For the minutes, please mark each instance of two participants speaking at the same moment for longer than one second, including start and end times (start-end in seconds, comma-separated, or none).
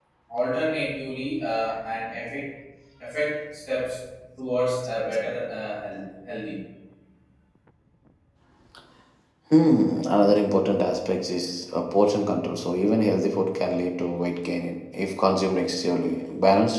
none